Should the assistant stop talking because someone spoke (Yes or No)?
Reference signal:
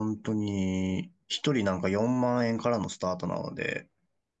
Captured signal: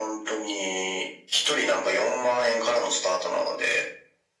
No